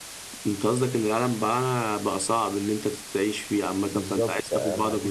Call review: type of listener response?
taking over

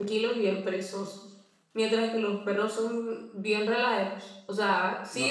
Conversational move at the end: taking over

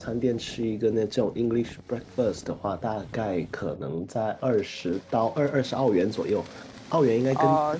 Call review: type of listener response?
listening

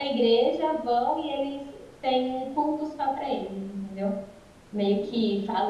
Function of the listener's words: listening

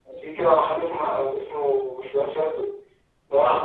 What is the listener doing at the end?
listening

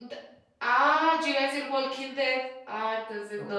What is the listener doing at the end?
taking over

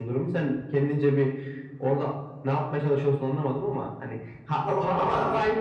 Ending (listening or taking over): listening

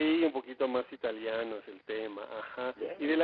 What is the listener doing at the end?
listening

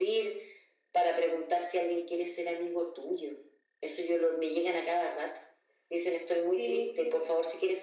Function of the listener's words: listening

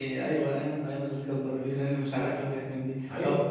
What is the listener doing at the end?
listening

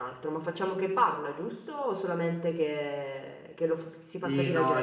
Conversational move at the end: taking over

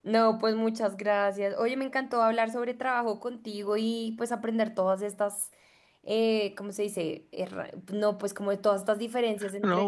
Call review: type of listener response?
taking over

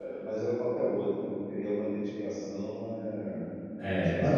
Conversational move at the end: taking over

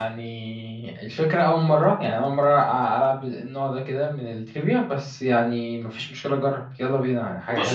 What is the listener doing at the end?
taking over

